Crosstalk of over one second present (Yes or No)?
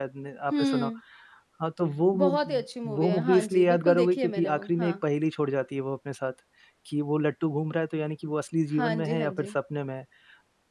Yes